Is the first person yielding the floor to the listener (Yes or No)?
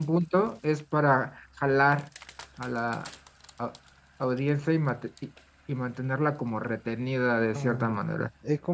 Yes